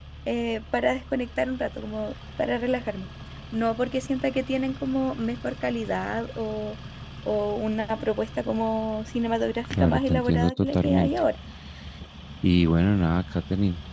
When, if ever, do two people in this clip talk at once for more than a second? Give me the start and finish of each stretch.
9.7-11.1

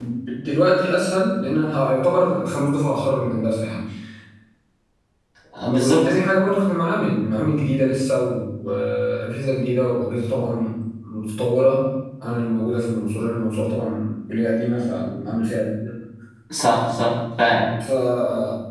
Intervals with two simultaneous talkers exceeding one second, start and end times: none

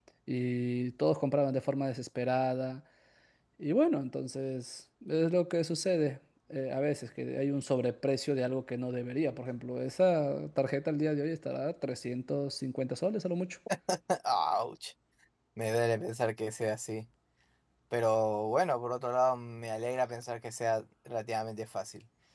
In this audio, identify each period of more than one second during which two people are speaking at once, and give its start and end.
none

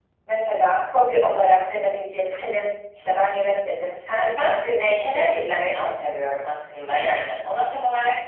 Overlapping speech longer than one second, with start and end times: 4.2-5.9

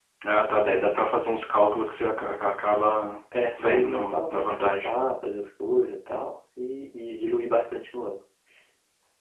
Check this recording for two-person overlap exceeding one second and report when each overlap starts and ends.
3.5-4.9

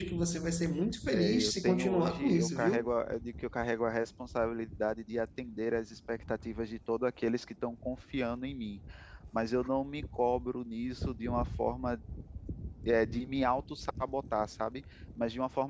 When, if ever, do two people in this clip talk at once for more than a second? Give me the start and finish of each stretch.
1.1-2.9

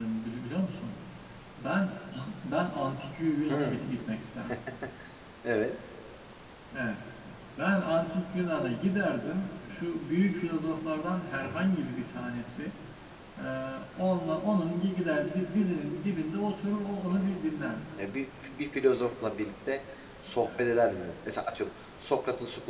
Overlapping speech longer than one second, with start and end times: none

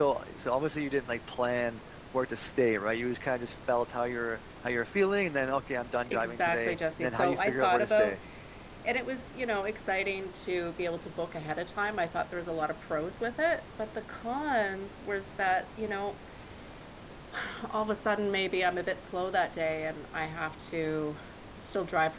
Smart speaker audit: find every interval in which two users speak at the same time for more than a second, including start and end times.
6.1-8.2

